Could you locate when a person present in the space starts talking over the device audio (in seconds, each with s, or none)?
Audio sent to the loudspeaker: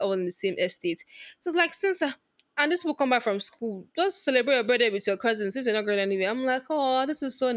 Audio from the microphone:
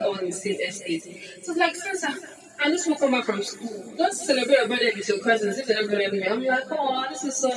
none